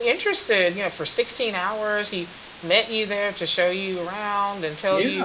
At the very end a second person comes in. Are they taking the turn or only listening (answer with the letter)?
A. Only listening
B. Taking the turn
A